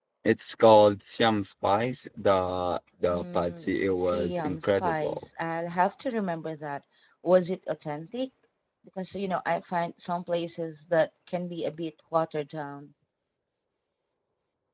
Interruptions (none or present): present